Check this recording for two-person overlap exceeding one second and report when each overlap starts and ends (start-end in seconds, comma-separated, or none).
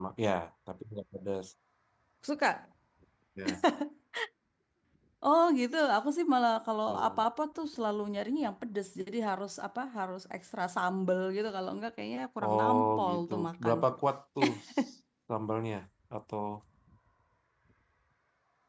12.4-13.7